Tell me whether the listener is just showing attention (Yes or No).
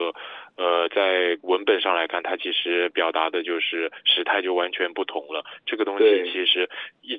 Yes